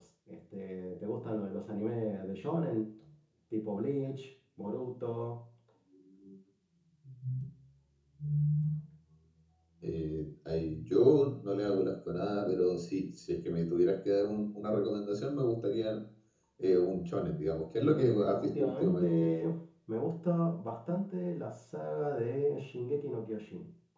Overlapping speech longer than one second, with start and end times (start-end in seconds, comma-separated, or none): 17.9-19.1